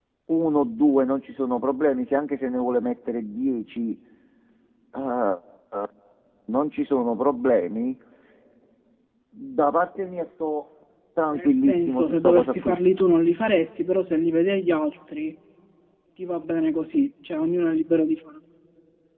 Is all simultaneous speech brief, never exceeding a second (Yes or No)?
No